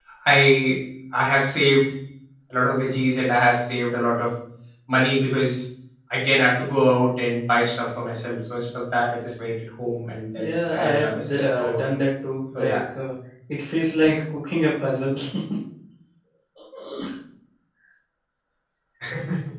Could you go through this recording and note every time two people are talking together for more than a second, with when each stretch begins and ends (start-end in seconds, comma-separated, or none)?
10.4-11.8